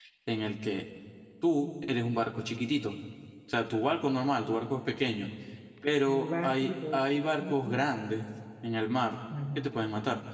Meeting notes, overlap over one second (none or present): present